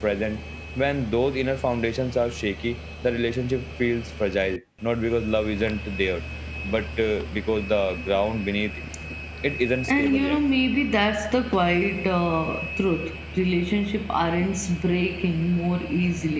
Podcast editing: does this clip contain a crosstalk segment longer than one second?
No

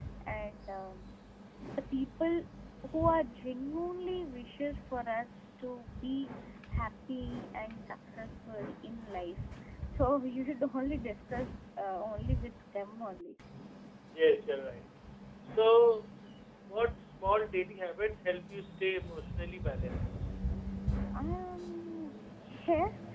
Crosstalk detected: No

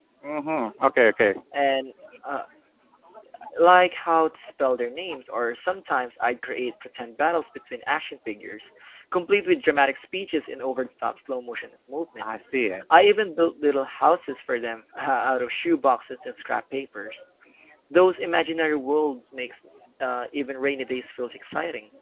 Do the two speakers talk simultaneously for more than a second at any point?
No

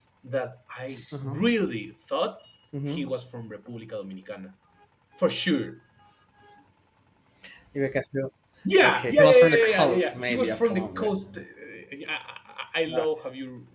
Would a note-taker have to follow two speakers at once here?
Yes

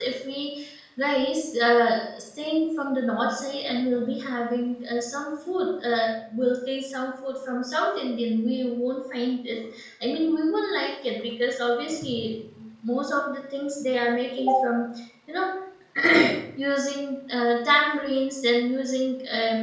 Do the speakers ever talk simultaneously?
No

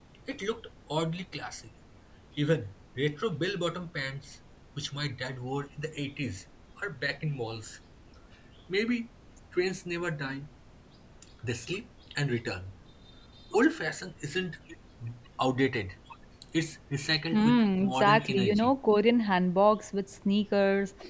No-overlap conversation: No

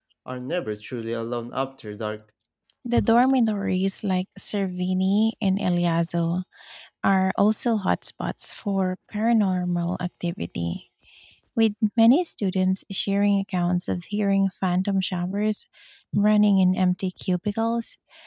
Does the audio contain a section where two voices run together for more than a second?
No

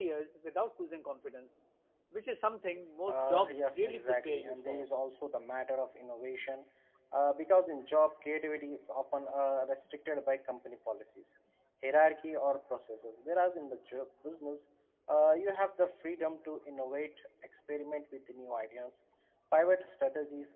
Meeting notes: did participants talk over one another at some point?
Yes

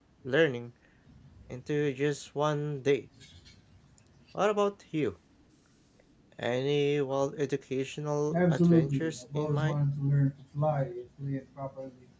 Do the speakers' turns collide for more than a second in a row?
Yes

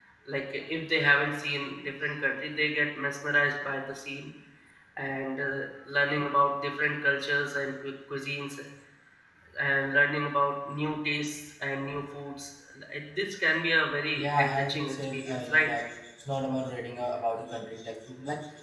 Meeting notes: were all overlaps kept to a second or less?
No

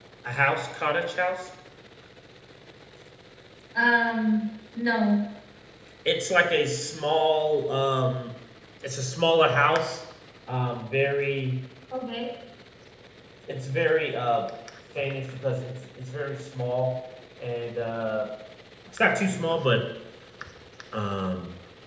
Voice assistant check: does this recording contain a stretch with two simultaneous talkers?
No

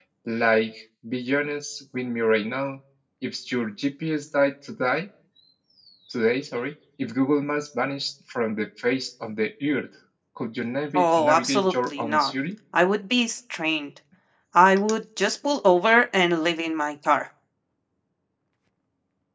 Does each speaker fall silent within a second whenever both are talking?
No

